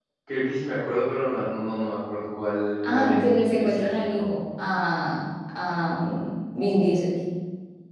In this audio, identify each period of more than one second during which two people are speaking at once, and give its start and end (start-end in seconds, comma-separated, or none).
2.8-4.3